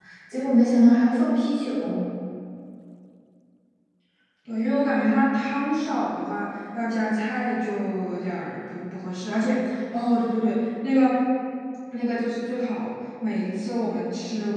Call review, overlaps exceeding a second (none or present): none